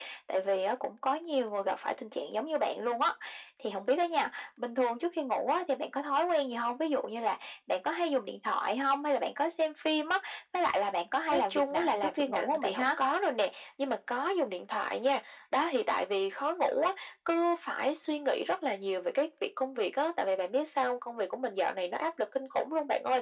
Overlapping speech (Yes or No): Yes